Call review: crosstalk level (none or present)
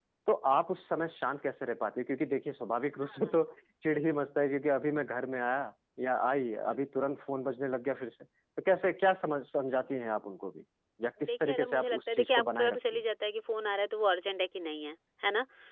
present